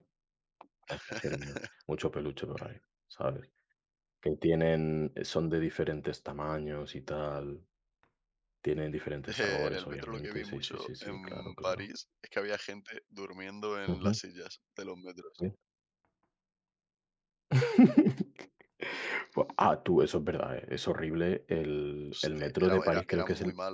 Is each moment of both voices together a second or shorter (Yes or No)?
No